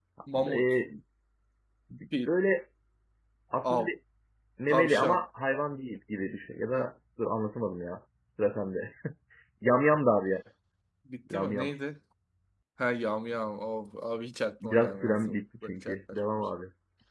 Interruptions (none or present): present